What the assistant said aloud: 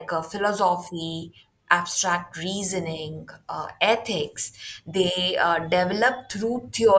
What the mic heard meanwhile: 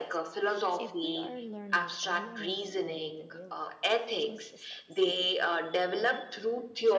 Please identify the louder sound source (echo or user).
echo